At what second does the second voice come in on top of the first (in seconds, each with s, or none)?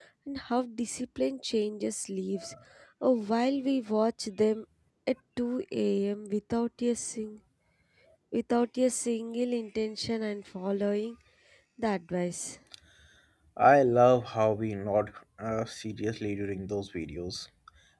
none